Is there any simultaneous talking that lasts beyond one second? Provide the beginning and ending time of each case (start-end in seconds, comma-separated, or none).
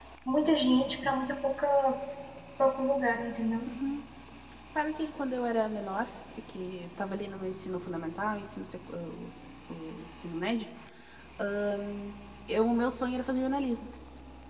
none